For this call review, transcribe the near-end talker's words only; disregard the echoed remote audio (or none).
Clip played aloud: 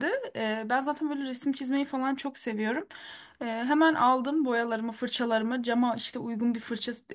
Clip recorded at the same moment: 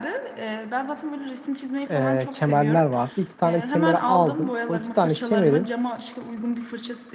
eee, kemerler vardı. İki tane kemeri aldım. O iki tane kemerin